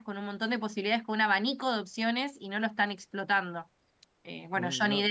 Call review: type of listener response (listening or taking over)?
listening